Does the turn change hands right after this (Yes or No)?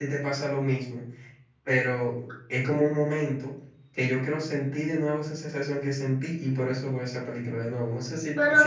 Yes